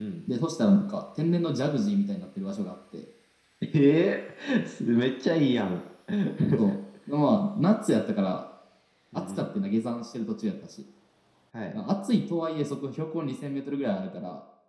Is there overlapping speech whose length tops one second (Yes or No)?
No